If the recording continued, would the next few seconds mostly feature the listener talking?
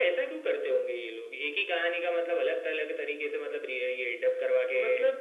Yes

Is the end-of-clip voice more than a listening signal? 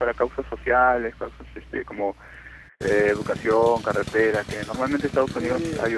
Yes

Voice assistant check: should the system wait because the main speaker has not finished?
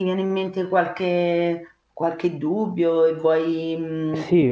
No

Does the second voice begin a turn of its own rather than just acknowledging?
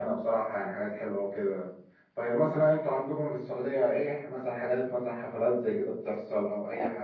Yes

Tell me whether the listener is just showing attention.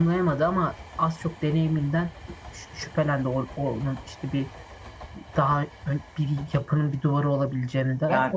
No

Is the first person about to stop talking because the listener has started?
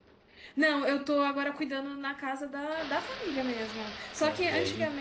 No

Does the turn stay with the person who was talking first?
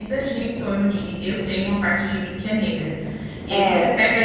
Yes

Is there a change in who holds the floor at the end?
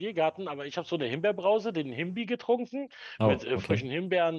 No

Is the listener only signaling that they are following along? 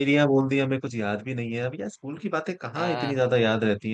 Yes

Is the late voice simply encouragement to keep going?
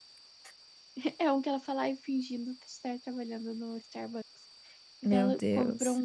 Yes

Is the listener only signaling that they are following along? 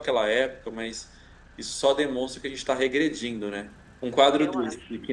Yes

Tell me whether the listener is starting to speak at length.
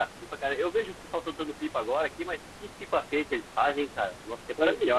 Yes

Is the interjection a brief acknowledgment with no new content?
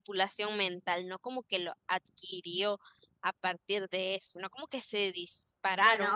No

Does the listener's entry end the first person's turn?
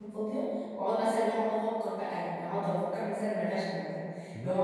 Yes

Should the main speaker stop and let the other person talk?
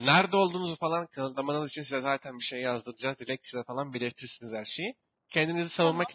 No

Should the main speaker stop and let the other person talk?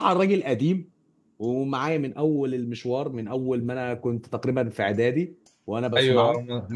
Yes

